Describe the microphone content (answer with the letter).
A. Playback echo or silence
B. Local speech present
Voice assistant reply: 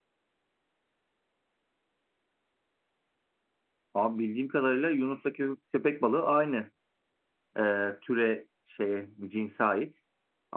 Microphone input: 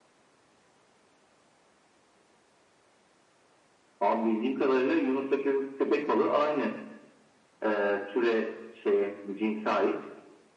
A